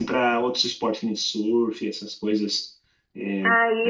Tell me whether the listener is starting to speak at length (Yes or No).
Yes